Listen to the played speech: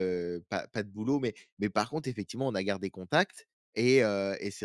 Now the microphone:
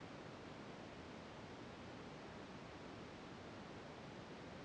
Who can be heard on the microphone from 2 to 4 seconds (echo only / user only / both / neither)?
neither